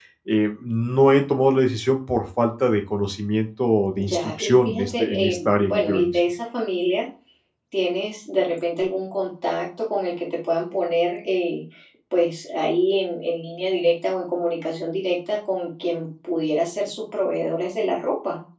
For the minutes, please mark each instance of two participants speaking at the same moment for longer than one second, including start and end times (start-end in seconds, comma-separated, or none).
4.0-6.2